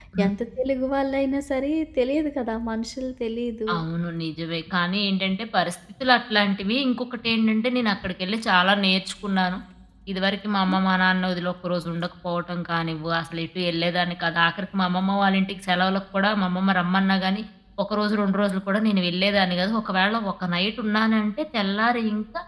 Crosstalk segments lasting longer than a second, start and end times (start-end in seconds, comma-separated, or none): none